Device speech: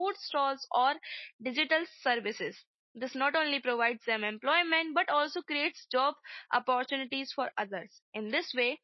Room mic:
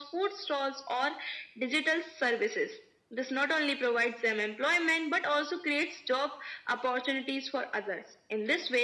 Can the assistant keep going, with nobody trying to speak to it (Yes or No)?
Yes